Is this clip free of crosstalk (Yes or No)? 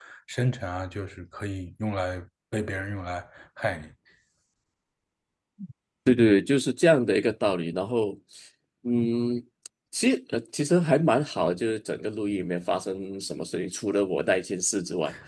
Yes